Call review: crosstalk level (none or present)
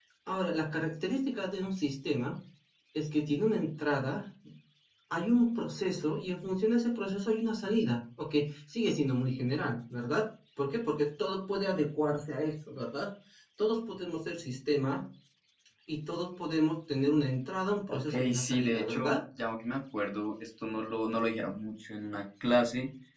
present